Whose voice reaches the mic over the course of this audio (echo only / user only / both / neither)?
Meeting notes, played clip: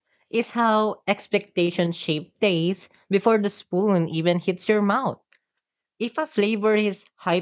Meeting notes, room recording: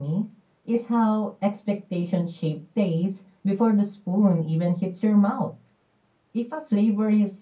echo only